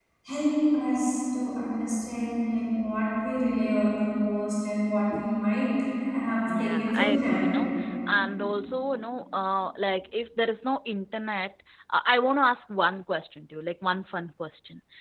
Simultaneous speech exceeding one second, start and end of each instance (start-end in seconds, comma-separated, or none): 6.5-7.7